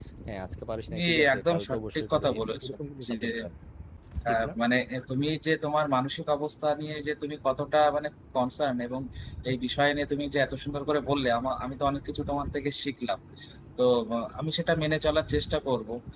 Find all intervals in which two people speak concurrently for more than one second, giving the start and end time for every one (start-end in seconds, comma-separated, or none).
0.9-2.7